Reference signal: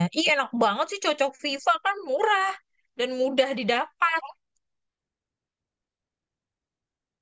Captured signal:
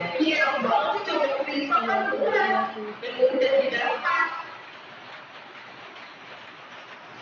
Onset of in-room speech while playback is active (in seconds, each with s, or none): 1.8 s